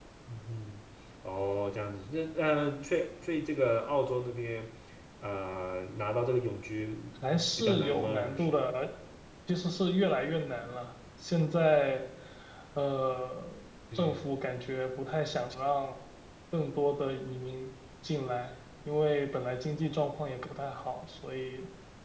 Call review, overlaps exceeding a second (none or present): present